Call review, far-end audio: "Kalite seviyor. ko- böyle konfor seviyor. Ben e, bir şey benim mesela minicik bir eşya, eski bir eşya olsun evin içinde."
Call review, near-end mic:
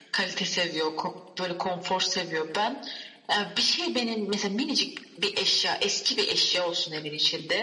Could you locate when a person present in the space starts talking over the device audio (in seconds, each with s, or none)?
none